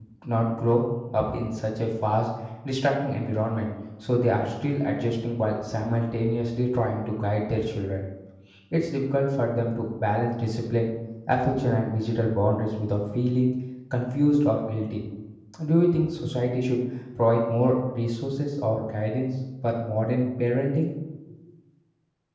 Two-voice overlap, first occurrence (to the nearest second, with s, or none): none